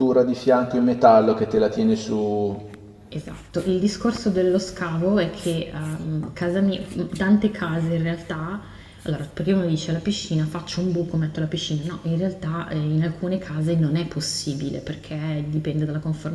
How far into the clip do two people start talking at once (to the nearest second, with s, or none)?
none